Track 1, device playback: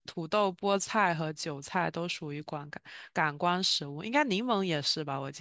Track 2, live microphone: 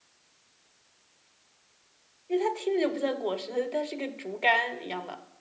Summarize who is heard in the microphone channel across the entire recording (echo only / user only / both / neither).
user only